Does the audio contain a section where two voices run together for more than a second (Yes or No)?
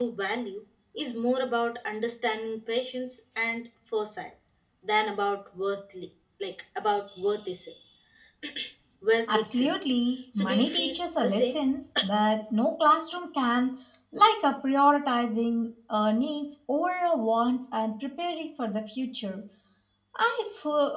Yes